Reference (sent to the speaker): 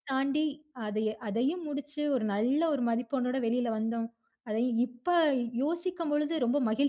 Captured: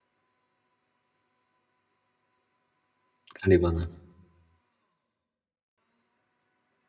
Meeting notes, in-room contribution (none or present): present